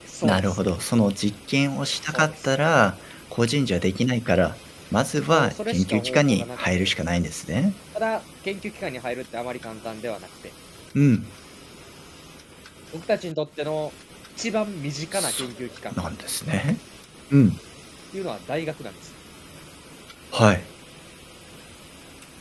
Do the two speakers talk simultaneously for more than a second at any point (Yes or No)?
Yes